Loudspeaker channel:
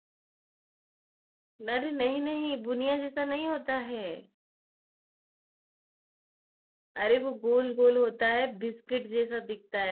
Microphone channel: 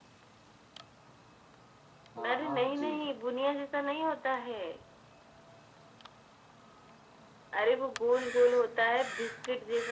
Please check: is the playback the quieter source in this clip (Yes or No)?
No